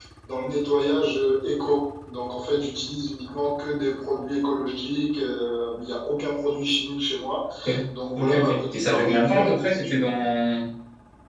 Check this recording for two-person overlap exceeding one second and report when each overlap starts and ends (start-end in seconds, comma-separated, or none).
8.2-10.1